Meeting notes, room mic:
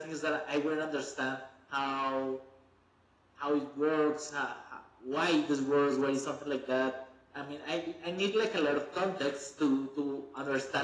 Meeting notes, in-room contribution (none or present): none